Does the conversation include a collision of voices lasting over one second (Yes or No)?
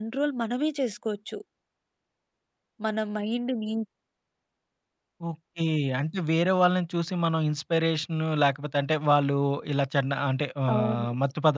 No